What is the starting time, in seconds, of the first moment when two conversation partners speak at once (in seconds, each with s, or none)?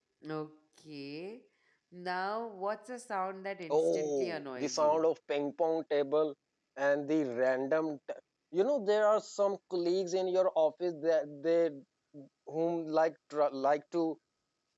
3.7 s